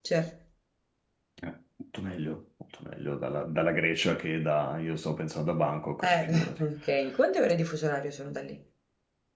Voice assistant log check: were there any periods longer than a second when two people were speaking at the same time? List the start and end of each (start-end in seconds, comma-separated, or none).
none